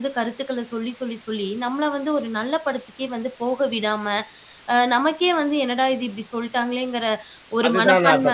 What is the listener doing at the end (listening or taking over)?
taking over